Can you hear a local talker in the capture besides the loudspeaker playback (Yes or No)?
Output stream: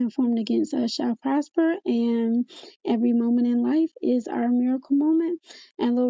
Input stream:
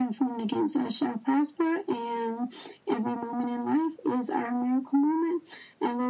No